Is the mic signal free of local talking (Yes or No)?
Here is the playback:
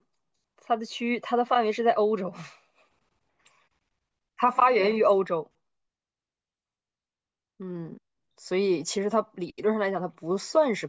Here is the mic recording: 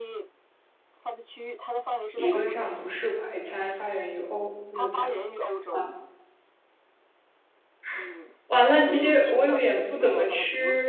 No